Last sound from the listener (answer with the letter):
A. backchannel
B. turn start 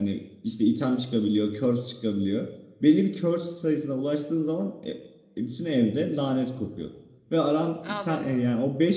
A